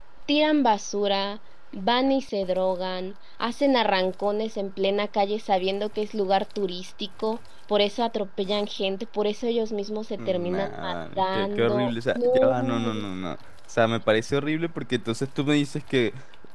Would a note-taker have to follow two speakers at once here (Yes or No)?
Yes